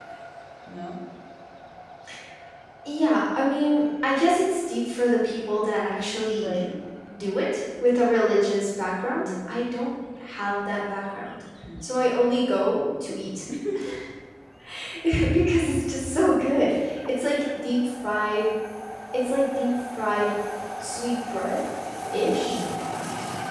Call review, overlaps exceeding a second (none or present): none